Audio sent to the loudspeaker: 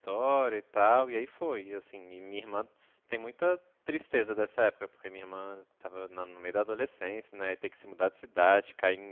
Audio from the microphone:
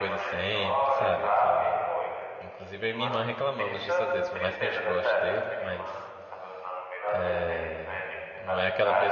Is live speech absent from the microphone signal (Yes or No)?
No